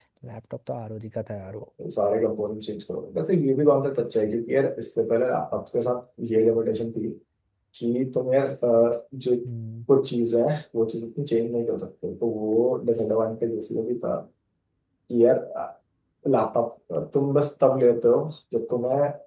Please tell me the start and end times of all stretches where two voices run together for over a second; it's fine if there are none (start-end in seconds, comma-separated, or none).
none